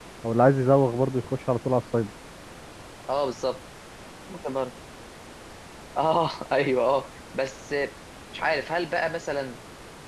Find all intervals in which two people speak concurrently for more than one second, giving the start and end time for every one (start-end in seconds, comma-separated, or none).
none